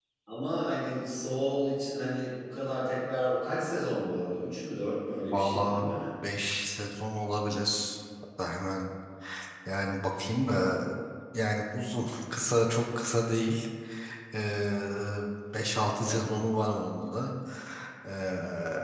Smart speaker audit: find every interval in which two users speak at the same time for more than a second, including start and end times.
none

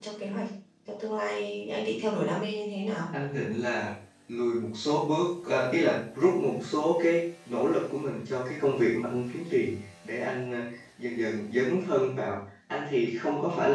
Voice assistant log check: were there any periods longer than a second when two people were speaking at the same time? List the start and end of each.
none

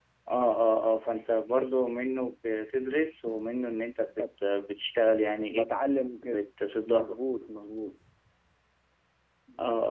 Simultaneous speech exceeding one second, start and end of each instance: none

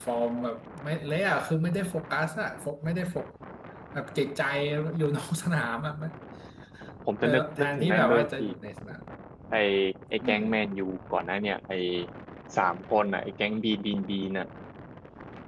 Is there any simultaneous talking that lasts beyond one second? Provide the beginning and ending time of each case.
7.2-8.5

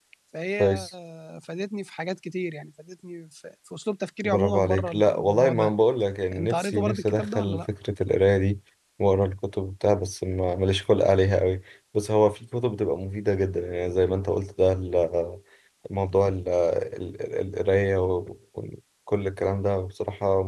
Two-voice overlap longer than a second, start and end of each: 4.2-5.7, 6.3-7.7

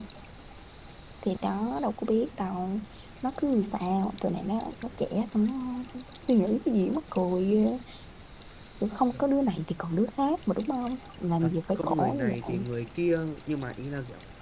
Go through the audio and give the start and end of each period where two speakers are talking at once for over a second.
11.4-12.7

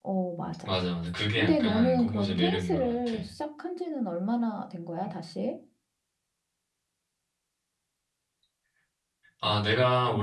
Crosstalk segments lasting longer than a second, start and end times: 1.4-3.2

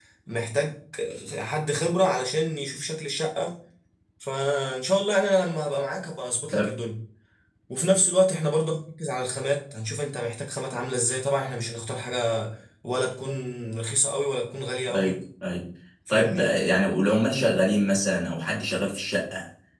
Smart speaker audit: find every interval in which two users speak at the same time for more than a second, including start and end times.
none

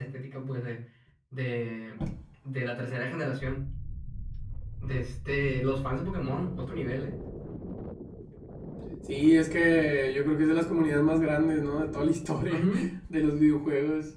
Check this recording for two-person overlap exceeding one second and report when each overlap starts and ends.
none

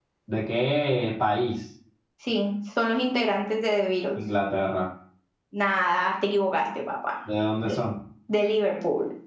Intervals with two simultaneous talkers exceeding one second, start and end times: none

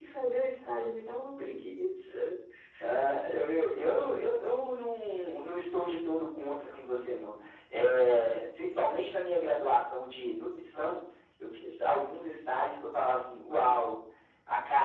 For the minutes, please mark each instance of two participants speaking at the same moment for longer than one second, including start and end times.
none

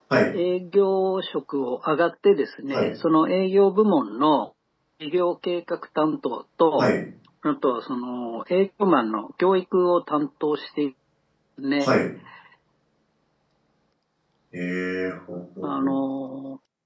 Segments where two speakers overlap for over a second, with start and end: none

